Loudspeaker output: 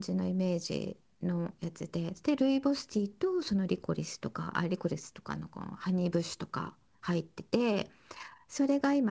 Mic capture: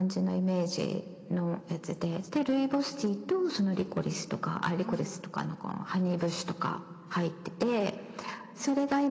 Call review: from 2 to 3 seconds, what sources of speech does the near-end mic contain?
echo only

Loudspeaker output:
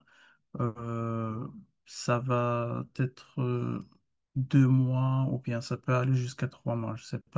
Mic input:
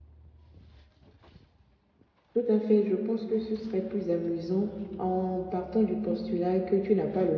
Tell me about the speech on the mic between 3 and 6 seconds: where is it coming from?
user only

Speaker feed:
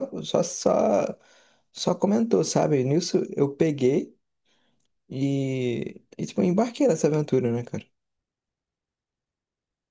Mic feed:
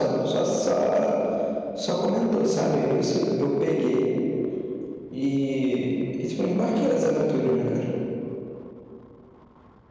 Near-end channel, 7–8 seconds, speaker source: echo only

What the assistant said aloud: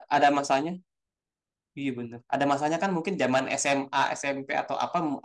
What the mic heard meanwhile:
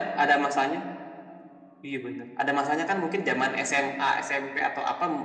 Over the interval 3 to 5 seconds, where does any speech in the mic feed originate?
echo only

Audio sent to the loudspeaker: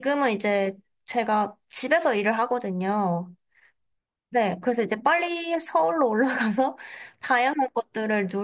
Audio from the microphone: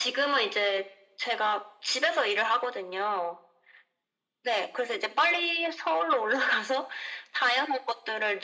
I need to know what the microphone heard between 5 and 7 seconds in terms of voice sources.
echo only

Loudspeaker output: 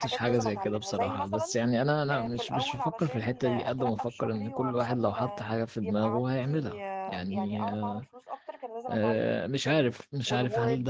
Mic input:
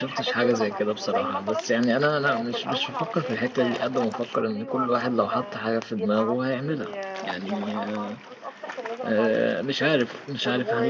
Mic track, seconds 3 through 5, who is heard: echo only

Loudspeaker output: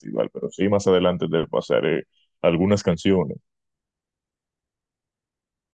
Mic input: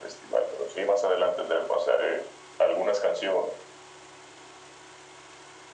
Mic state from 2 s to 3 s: echo only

